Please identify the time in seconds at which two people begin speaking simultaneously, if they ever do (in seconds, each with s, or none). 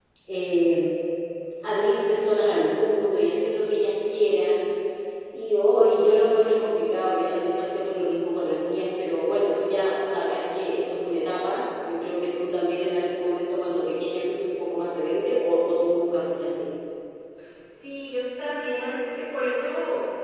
none